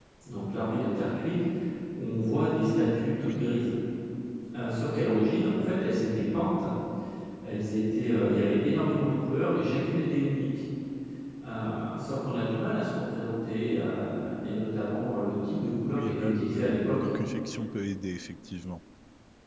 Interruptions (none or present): present